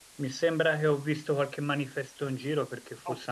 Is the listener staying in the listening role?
Yes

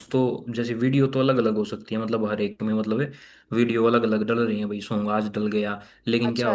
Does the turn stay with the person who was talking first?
Yes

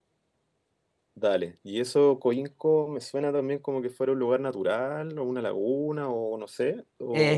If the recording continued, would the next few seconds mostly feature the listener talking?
Yes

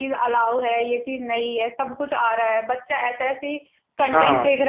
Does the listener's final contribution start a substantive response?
No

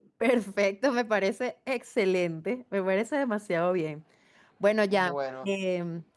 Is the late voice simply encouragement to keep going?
Yes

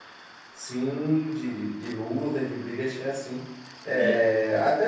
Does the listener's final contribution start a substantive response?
No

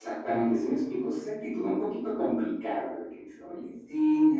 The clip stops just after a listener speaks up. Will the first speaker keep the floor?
No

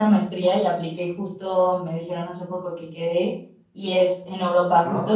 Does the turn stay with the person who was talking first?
Yes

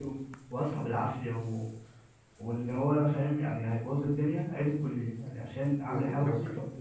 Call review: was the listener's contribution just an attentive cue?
No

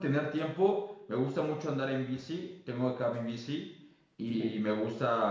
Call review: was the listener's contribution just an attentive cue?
Yes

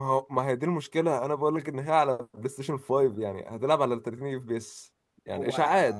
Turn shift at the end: Yes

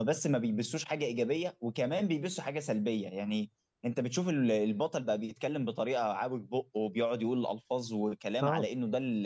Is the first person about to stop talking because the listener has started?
No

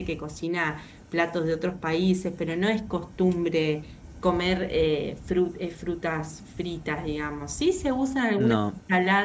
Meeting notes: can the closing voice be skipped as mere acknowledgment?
Yes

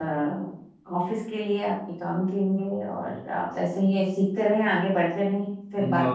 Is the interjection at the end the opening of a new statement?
Yes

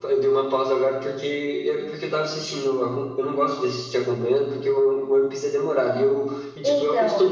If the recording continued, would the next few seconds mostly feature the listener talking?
No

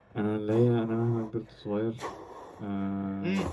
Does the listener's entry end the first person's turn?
Yes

